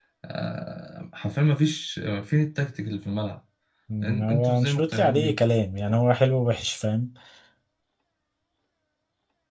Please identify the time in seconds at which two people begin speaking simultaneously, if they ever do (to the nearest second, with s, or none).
4 s